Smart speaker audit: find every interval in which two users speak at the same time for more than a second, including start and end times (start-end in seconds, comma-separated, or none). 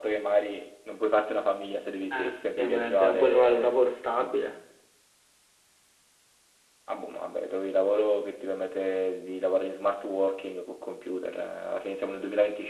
2.1-4.4